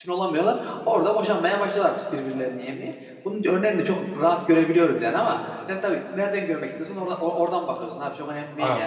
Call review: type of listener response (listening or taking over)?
listening